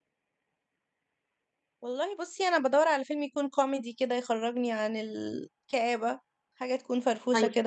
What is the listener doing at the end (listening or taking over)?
taking over